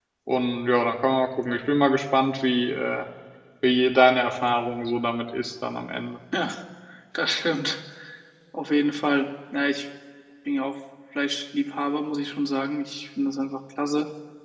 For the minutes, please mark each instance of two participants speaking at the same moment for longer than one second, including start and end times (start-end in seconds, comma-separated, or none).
none